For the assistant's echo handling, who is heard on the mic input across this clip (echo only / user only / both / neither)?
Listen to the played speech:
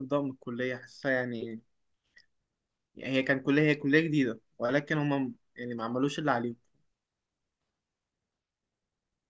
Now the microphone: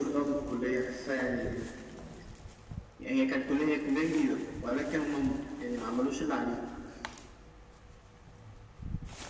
echo only